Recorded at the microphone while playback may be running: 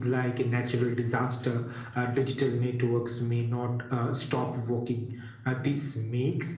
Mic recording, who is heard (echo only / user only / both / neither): echo only